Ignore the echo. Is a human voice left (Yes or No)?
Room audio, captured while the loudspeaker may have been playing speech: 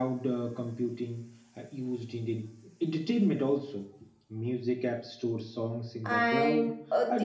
Yes